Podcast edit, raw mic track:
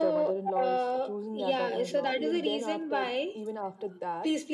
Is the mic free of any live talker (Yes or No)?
Yes